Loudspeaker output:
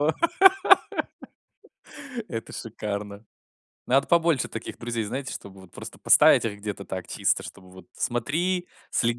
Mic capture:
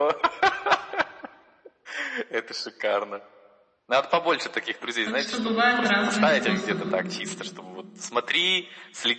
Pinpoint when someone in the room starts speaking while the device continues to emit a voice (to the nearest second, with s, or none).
5 s